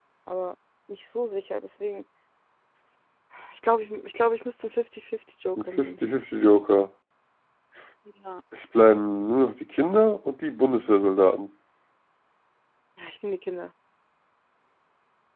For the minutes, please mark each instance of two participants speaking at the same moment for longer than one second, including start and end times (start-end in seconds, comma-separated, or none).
none